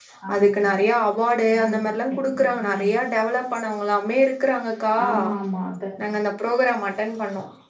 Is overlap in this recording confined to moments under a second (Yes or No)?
No